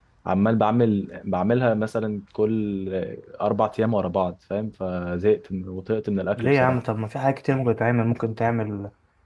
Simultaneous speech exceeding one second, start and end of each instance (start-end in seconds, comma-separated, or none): none